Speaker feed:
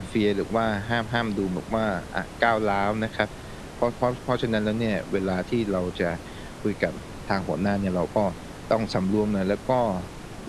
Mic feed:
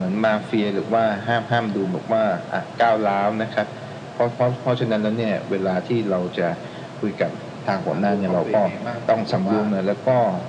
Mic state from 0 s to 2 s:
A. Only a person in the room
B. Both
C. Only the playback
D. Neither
C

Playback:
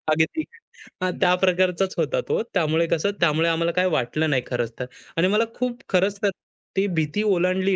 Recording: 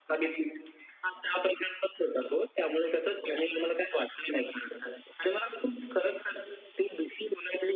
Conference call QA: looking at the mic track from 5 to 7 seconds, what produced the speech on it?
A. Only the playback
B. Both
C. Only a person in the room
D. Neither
A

